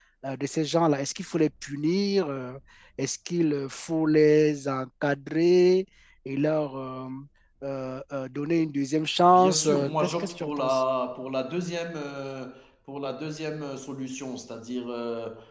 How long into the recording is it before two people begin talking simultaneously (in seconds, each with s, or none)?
9.2 s